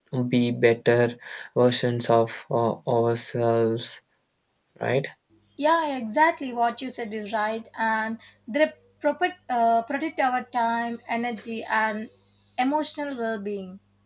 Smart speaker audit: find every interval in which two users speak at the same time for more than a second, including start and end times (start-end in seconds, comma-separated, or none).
none